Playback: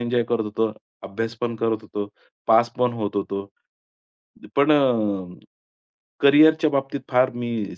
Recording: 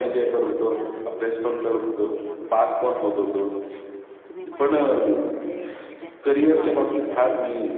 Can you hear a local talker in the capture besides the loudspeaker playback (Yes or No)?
Yes